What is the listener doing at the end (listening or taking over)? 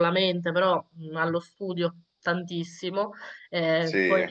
listening